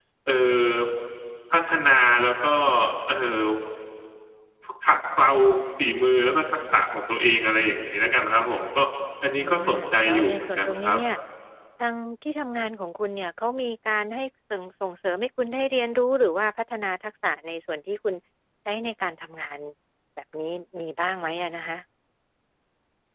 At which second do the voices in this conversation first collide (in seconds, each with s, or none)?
9.3 s